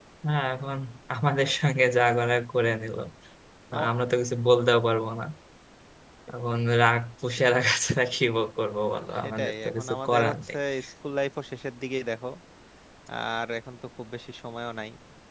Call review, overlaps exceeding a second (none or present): present